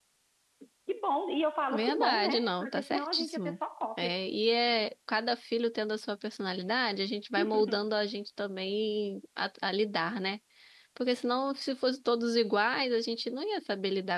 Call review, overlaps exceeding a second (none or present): present